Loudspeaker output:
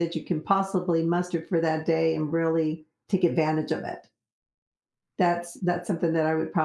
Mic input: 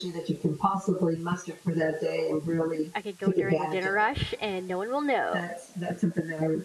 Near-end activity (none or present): present